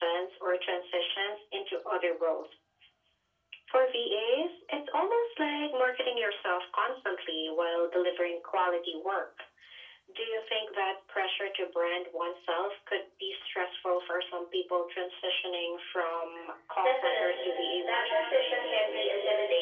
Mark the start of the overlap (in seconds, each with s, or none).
16.8 s